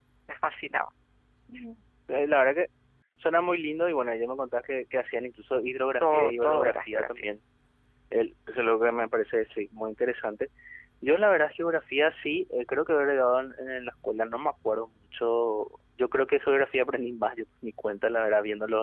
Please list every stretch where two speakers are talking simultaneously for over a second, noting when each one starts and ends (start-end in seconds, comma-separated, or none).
6.0-7.2